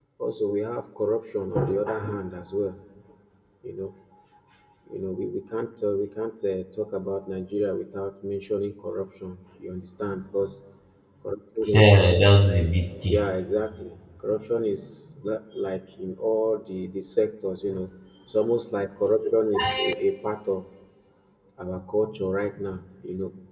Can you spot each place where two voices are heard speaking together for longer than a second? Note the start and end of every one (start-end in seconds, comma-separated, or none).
none